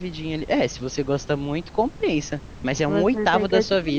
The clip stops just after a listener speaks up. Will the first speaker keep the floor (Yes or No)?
No